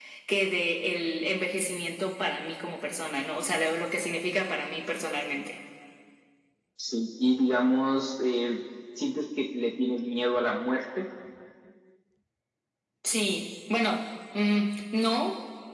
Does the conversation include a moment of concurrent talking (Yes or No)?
No